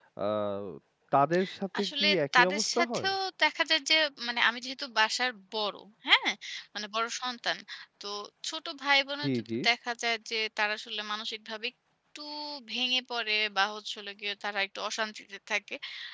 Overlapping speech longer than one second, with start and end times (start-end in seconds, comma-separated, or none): 1.8-3.1